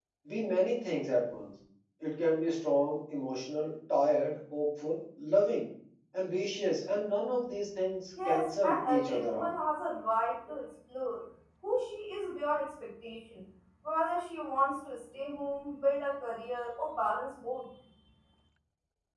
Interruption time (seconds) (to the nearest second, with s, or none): 8 s